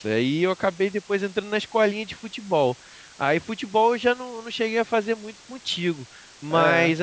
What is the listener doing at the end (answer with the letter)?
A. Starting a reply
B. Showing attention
B